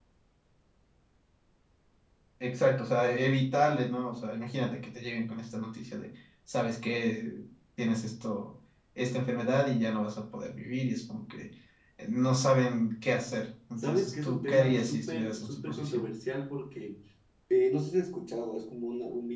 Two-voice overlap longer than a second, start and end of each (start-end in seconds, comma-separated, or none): 13.8-16.1